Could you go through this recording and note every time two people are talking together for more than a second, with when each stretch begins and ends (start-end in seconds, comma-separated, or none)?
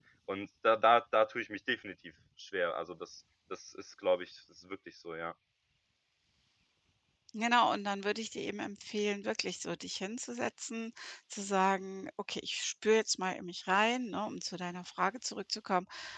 none